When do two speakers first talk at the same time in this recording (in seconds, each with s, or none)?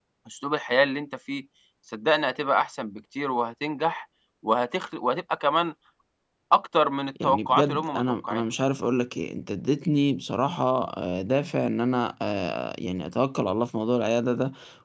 7.2 s